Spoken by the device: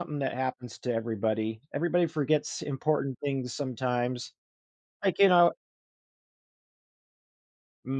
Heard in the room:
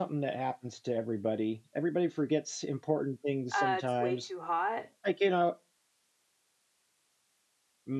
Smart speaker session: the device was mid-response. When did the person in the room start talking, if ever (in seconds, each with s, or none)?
3.5 s